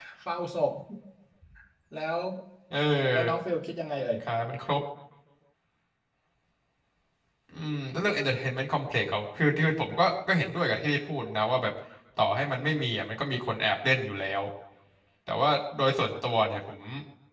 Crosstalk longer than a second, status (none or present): none